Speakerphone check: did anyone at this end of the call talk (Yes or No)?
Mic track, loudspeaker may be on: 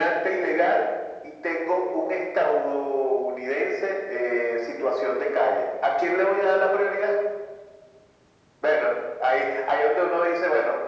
No